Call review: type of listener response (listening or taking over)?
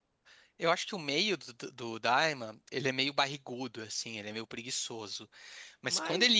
listening